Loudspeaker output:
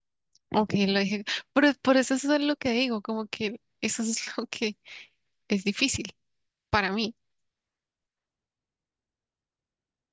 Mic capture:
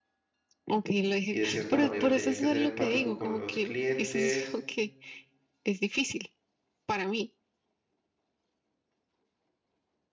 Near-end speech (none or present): present